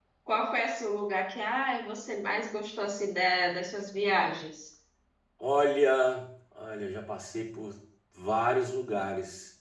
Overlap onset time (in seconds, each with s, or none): none